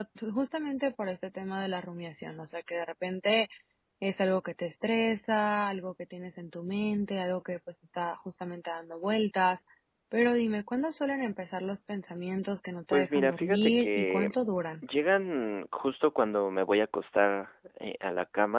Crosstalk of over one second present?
Yes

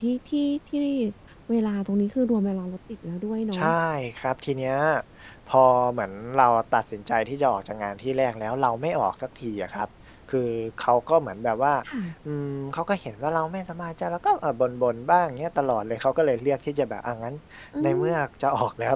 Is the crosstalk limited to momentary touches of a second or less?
Yes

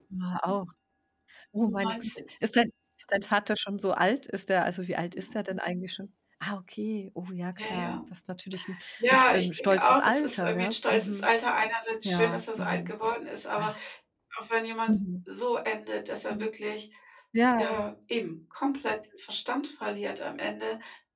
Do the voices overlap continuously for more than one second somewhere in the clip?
Yes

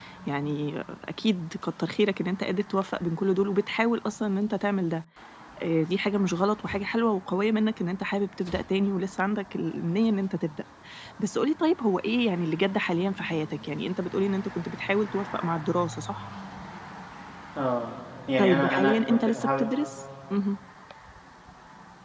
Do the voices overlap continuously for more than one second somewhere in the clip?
Yes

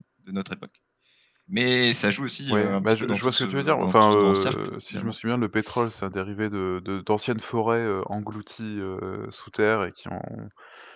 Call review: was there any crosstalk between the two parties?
Yes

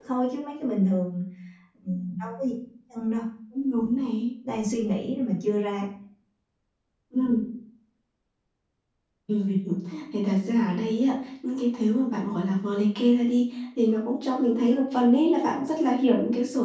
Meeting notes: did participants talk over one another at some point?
No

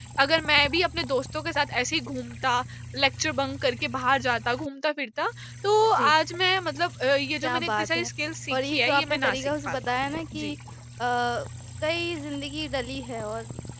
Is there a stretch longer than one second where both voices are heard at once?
Yes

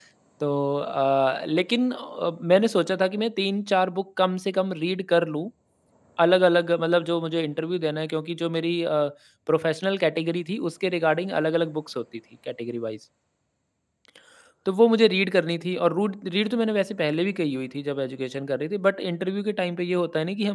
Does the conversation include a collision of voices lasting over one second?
No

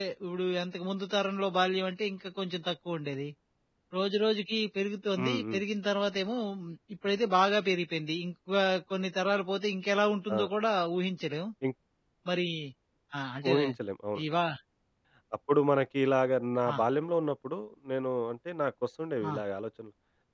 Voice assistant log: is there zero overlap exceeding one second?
Yes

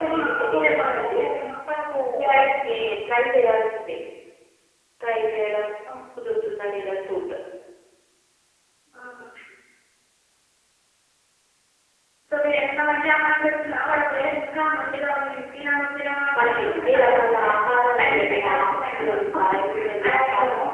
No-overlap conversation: No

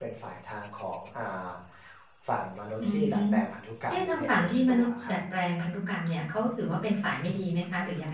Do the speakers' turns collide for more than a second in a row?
Yes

